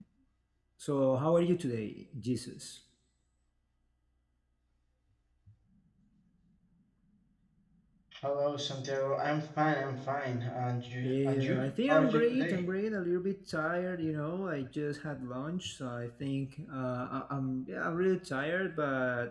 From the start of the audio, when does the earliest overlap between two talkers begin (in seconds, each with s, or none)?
11.0 s